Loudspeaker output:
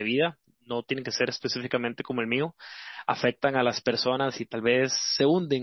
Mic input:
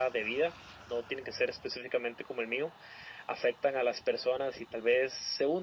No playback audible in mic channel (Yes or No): No